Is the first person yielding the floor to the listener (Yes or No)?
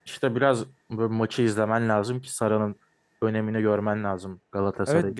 Yes